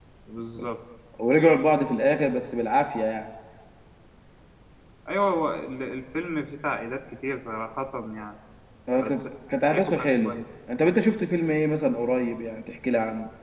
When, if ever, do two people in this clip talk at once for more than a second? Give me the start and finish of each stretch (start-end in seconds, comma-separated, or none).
9.0-10.4